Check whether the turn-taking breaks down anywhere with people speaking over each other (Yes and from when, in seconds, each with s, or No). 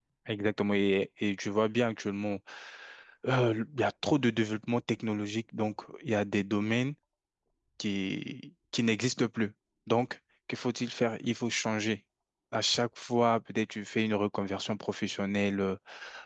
No